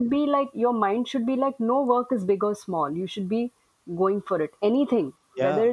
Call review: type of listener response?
listening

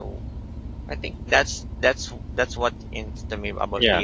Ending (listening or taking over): listening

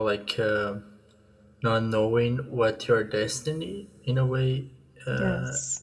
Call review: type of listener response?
listening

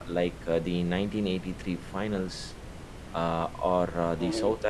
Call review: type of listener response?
listening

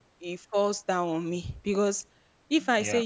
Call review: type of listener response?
listening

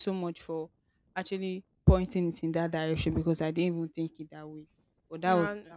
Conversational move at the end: listening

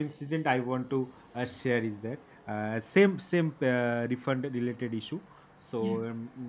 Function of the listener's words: listening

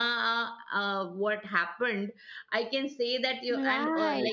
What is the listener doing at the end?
listening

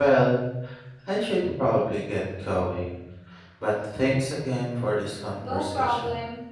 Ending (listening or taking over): taking over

